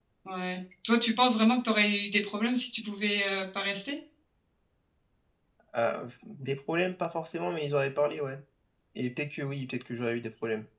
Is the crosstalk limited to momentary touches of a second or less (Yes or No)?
Yes